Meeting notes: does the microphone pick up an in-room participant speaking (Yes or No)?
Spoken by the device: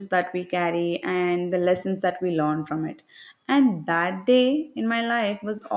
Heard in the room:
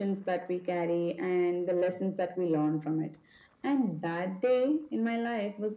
No